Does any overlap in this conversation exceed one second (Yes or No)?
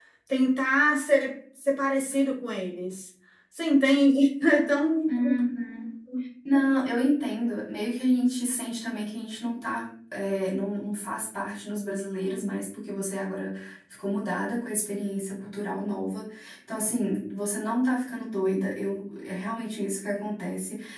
No